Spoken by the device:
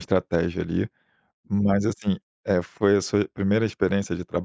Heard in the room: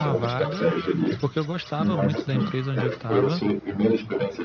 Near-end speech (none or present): present